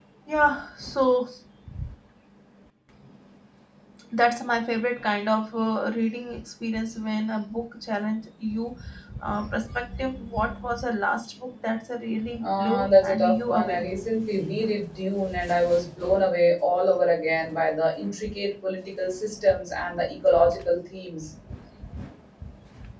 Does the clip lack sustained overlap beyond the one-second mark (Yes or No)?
No